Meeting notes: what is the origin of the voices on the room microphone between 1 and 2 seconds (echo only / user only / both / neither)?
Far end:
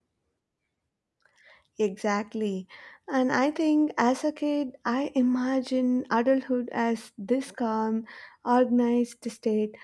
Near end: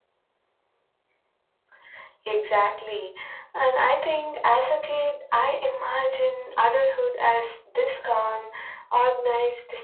neither